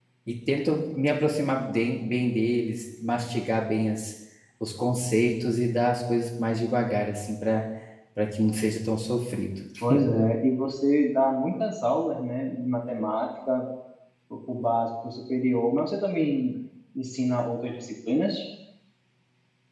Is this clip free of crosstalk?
Yes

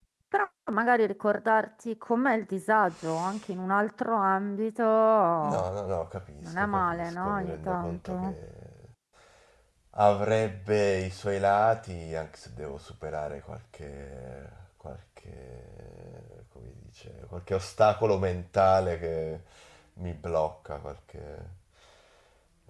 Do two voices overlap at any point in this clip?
Yes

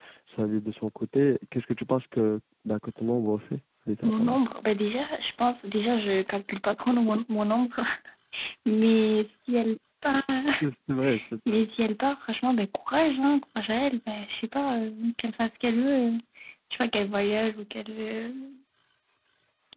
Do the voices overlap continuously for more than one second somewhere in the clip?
No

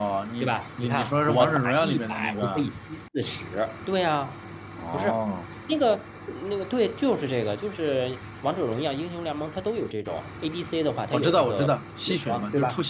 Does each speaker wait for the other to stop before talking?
No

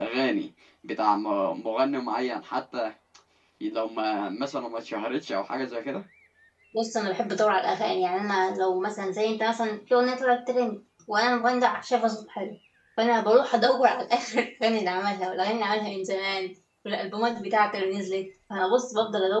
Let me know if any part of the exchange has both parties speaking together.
No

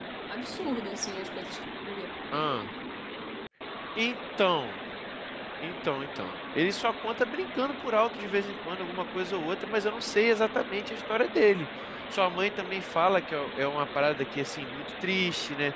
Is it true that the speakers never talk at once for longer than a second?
Yes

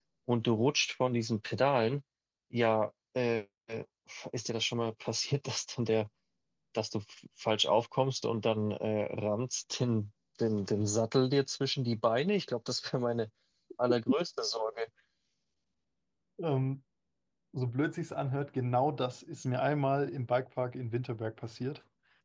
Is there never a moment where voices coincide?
Yes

